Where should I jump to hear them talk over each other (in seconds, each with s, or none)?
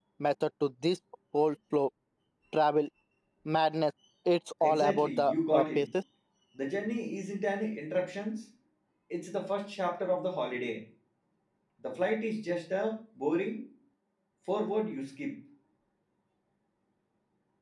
4.6 s